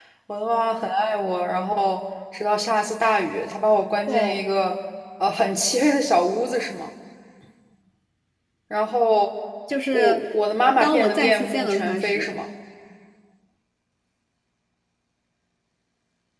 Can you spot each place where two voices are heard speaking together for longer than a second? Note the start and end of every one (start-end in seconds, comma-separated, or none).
10.8-12.3